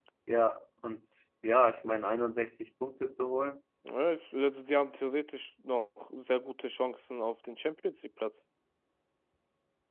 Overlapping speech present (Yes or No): No